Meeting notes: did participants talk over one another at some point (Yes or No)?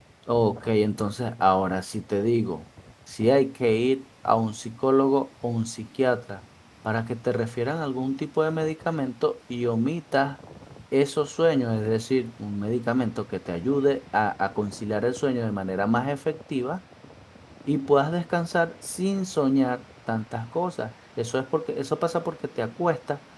No